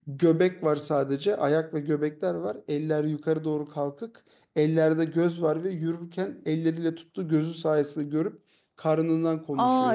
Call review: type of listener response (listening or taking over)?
taking over